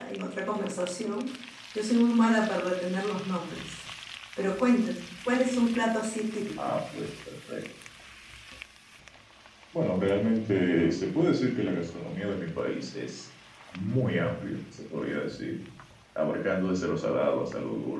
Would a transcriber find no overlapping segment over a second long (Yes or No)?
Yes